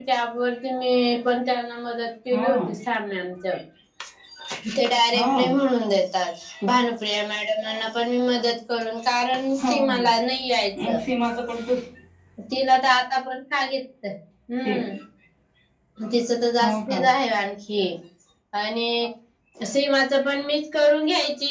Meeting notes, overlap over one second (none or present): none